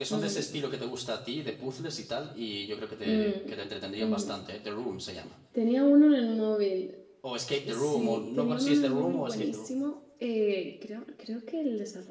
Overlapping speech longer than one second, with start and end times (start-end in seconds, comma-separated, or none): 7.7-9.7